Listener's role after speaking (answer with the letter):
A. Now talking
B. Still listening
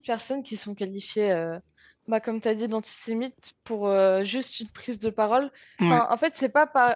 B